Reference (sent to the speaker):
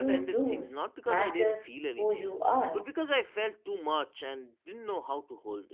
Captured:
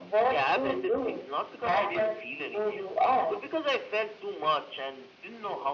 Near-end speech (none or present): none